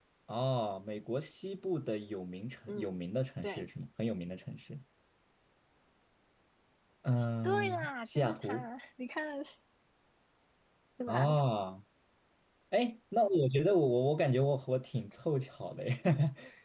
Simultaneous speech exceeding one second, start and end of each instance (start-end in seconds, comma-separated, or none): 7.4-8.7